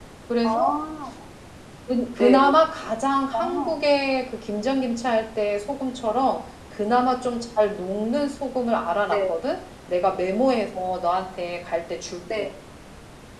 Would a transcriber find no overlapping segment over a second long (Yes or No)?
Yes